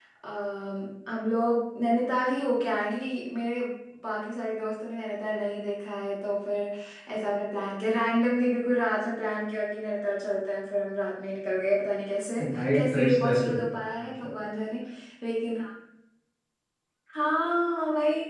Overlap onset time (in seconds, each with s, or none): 12.4 s